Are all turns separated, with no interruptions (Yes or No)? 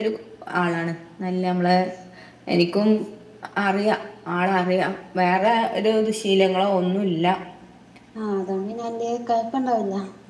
Yes